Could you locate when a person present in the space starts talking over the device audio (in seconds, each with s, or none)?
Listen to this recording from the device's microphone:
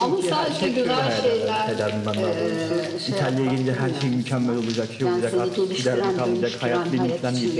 none